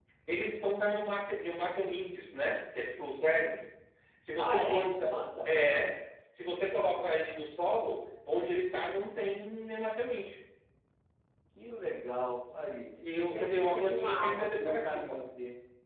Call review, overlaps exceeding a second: present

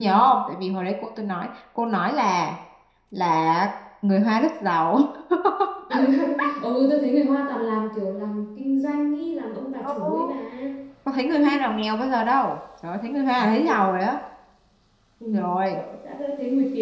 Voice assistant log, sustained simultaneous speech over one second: none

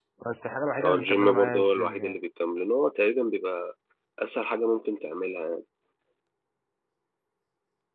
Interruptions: present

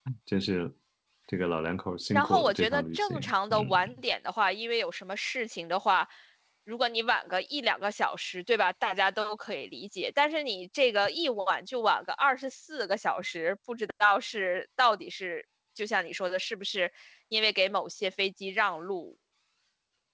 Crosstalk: present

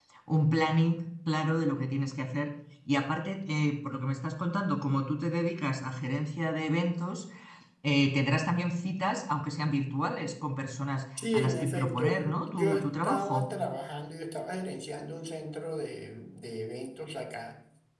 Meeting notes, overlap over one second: present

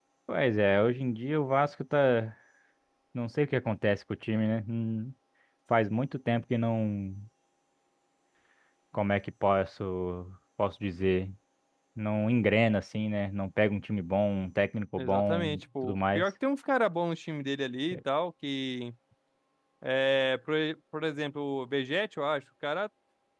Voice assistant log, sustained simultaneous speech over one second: present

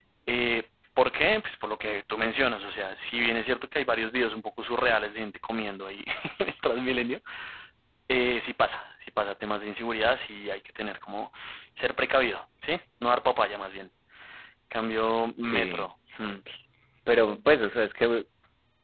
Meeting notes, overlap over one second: none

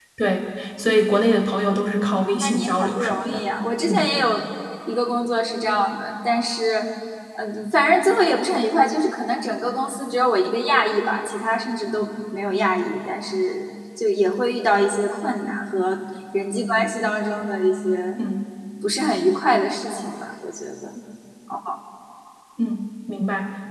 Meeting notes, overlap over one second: present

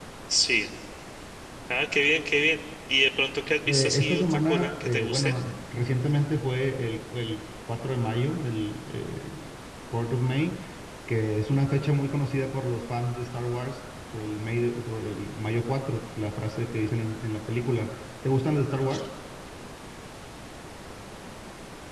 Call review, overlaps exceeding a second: present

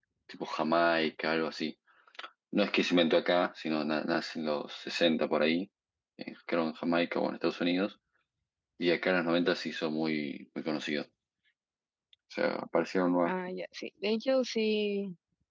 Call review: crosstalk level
none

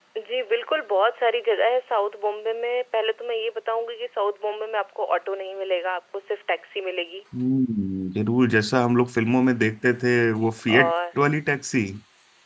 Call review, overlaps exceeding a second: none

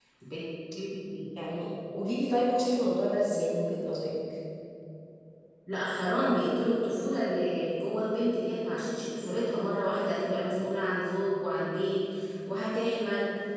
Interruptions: none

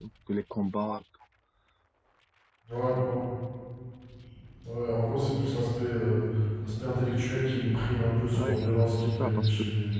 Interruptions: present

